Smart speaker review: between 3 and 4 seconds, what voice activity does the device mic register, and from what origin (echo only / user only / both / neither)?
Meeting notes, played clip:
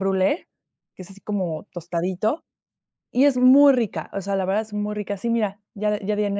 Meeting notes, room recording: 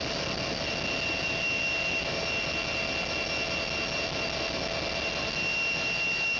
neither